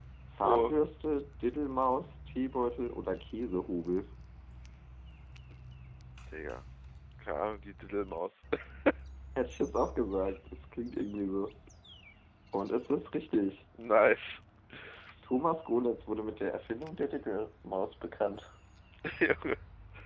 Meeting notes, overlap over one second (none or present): none